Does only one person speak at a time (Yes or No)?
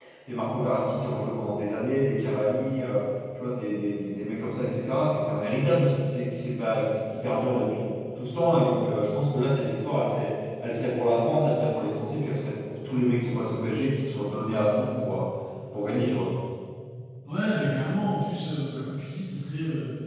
Yes